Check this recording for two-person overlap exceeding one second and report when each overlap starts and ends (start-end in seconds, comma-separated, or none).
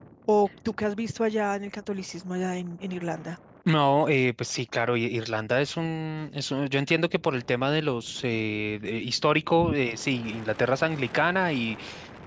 none